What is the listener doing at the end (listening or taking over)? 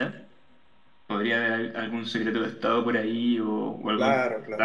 taking over